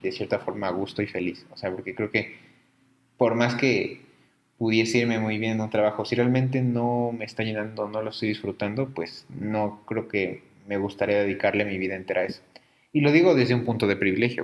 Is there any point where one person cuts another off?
No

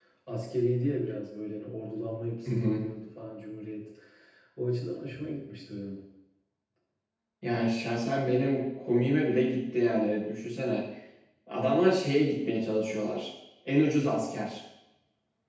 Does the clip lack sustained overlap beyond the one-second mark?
Yes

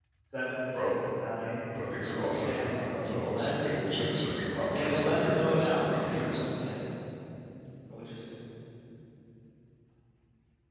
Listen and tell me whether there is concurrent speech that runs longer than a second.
Yes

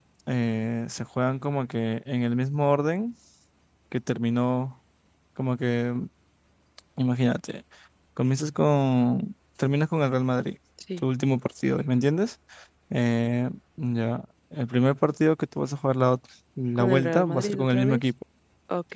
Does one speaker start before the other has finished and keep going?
Yes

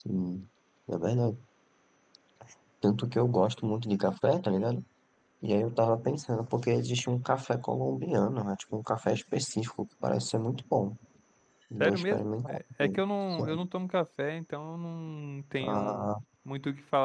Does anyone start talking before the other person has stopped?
Yes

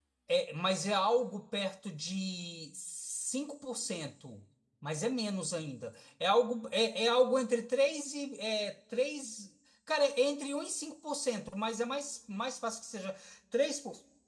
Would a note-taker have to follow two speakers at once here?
No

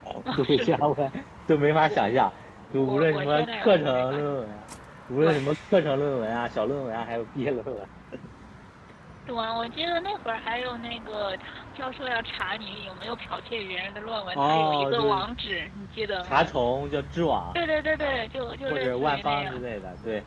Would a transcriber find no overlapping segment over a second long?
No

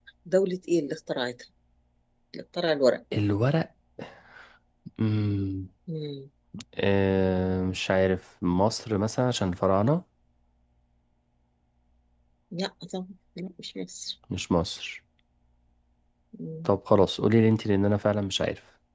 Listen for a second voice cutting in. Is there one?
No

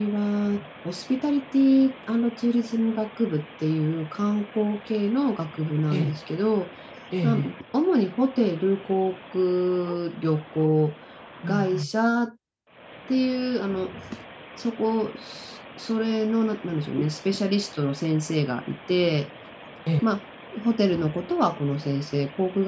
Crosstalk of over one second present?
No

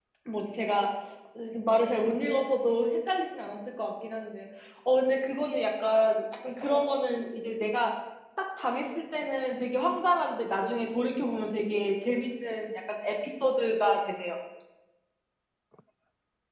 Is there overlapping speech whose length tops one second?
No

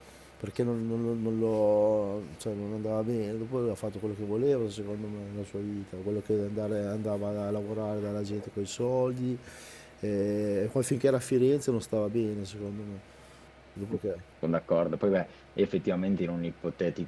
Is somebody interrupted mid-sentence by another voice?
No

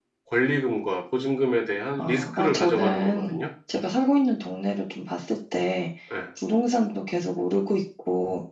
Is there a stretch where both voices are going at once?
Yes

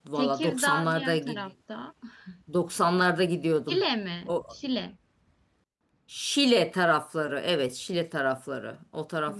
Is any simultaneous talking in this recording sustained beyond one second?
Yes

